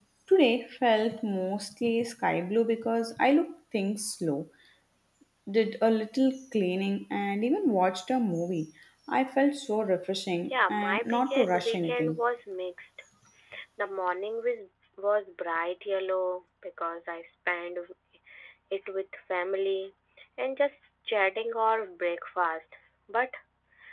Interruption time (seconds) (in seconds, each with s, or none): 10.4 s